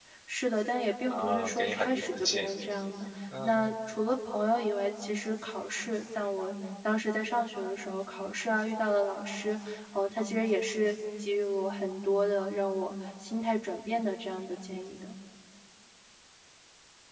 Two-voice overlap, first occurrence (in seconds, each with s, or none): 1.1 s